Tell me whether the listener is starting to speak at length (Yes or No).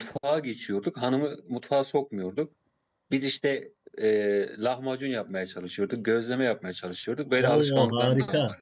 Yes